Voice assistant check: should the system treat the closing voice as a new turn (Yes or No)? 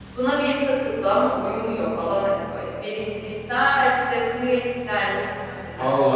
No